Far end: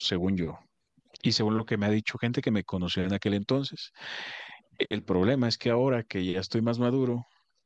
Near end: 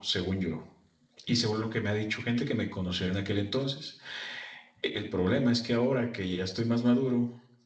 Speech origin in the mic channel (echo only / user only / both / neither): echo only